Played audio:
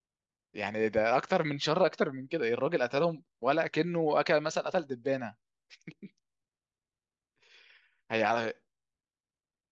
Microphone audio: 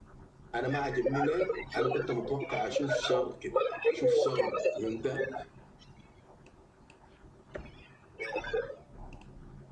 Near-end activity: present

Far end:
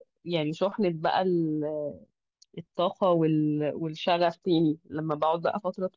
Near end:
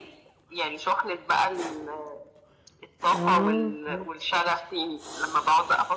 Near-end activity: present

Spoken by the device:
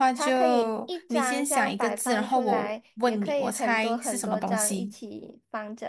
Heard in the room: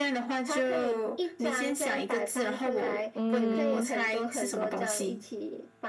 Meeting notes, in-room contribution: present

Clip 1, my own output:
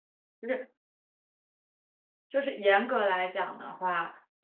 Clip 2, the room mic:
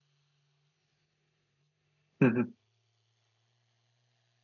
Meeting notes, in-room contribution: present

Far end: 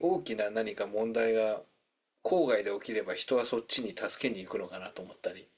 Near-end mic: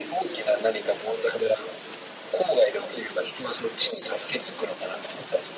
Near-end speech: none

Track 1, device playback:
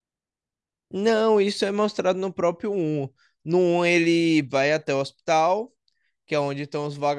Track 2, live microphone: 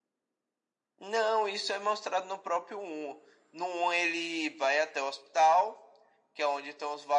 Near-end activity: none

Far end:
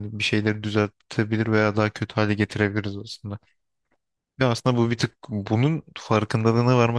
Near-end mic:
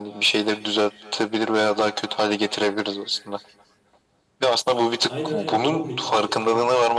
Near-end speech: present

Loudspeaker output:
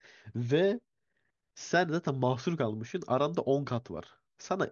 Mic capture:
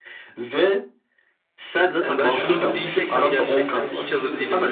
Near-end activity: present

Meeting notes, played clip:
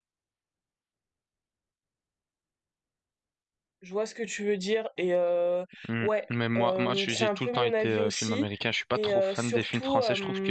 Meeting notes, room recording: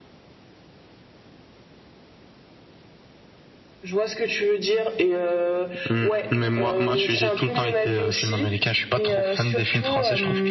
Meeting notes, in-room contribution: none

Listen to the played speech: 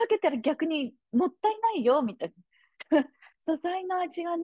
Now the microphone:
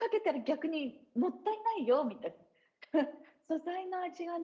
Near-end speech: none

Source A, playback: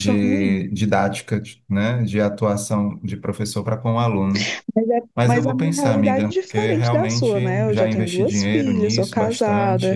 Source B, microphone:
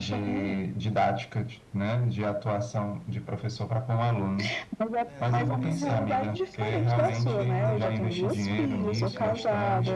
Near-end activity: present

